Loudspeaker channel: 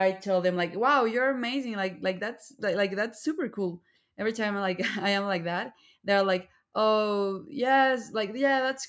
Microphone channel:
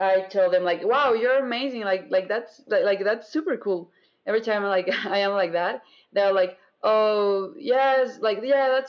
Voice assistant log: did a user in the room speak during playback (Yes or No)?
No